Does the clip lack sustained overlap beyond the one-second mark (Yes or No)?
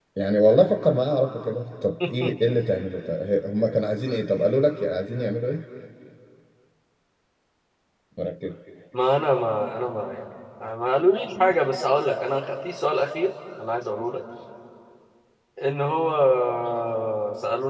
Yes